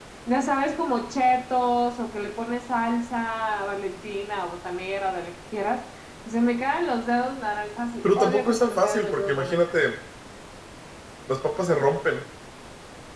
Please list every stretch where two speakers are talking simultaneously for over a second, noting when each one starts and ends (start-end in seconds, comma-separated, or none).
8.2-9.6